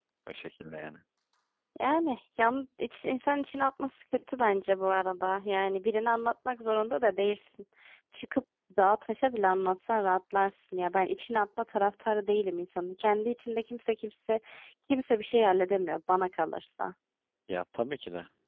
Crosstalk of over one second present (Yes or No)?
No